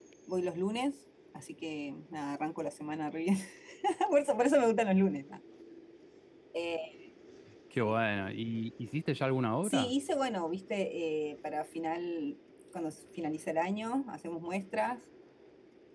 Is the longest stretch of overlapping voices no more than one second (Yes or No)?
Yes